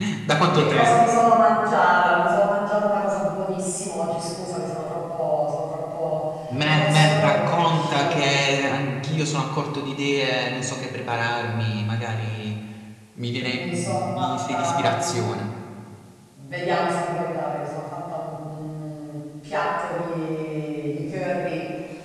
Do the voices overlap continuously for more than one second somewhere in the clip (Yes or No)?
Yes